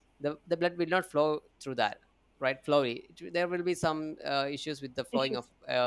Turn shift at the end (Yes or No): No